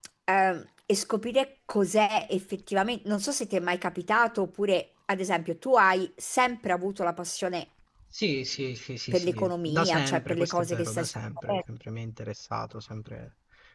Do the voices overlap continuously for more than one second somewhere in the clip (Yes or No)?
Yes